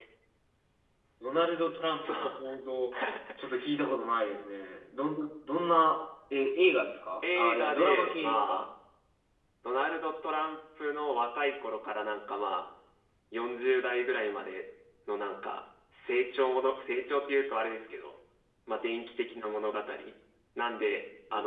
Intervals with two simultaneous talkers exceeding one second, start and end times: 7.2-8.6

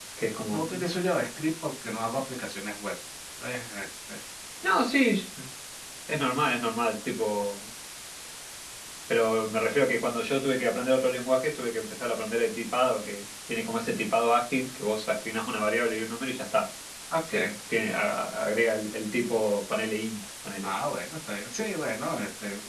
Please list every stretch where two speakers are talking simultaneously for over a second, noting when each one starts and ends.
none

